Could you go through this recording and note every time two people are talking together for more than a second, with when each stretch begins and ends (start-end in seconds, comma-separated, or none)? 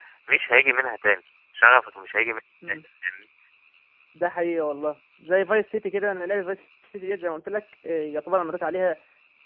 none